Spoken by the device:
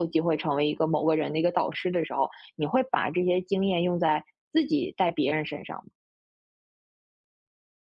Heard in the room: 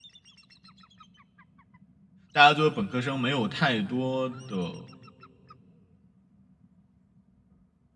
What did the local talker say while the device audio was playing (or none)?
大家作为本科生没有太多的